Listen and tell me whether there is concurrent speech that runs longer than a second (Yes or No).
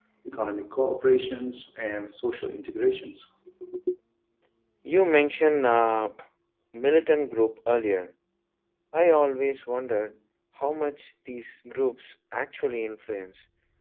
No